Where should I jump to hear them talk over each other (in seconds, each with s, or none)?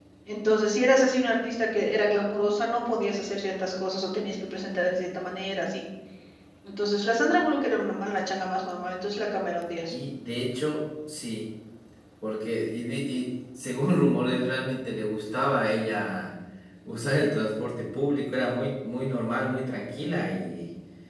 none